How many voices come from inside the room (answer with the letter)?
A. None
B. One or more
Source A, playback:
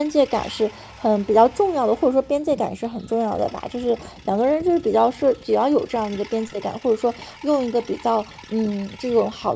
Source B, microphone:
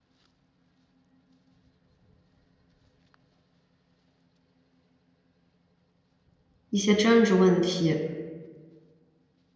B